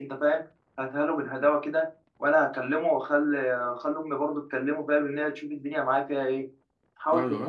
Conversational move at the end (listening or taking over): listening